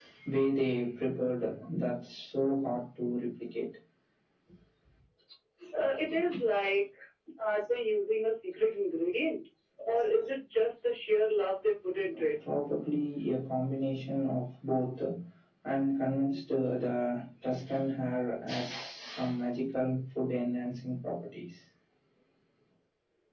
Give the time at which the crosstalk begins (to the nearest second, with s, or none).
none